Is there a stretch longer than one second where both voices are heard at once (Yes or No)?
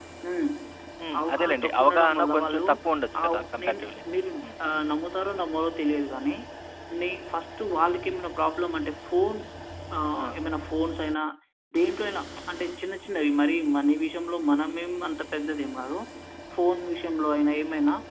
Yes